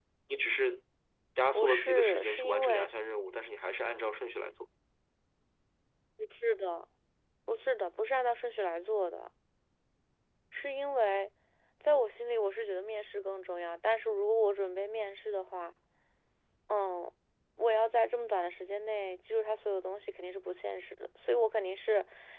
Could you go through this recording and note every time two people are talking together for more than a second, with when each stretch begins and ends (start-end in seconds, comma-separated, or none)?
1.5-2.9